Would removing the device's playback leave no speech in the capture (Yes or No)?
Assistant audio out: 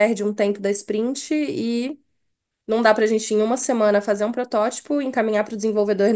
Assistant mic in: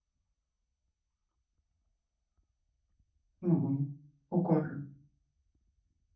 No